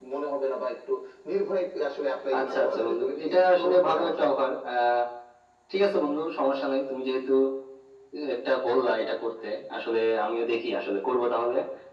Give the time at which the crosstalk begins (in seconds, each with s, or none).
2.3 s